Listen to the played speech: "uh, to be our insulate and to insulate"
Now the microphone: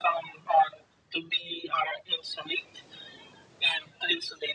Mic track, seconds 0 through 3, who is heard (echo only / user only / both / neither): echo only